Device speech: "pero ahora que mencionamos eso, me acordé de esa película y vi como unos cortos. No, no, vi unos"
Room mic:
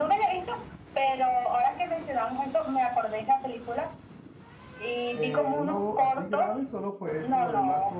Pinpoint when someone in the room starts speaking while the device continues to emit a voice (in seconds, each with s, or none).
5.2 s